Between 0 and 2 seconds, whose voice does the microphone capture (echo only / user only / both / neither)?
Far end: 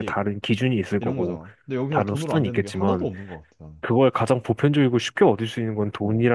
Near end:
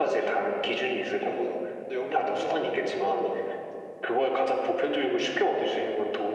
echo only